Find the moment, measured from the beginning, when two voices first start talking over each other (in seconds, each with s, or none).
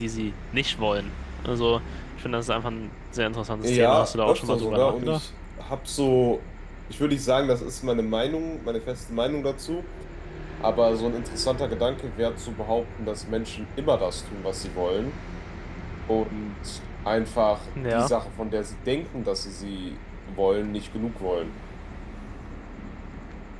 3.6 s